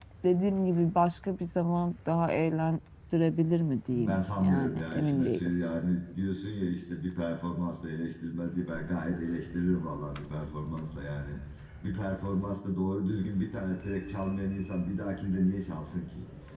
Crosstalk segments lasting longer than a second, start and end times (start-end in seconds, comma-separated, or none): 3.9-5.5